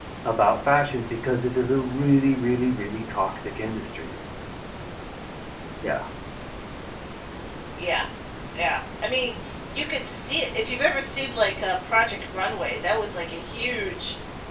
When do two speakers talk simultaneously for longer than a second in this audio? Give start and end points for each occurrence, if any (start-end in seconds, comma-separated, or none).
none